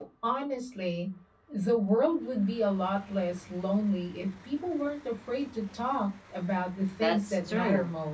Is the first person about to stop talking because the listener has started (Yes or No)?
Yes